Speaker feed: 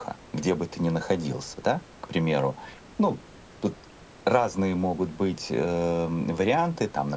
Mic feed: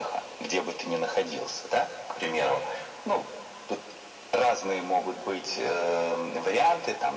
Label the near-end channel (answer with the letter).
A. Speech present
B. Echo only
B